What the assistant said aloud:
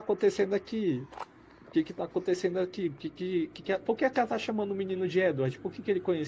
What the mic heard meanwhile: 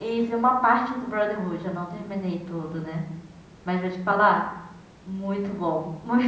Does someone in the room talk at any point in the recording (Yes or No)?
Yes